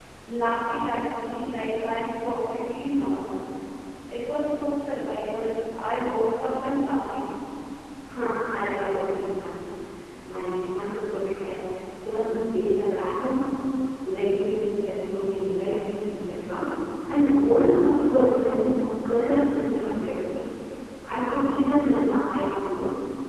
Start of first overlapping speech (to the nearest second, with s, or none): none